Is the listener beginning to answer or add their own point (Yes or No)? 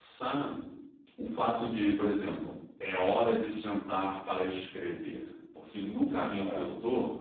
No